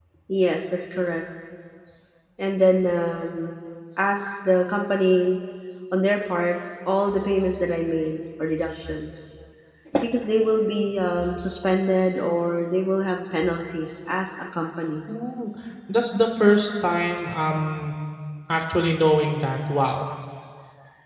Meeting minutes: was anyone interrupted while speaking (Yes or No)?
No